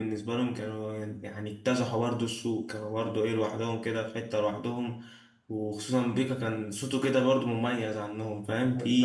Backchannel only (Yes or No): No